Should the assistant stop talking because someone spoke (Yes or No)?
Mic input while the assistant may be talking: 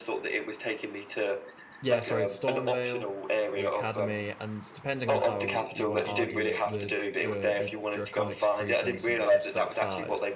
Yes